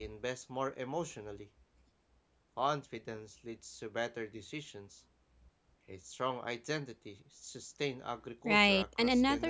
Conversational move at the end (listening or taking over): taking over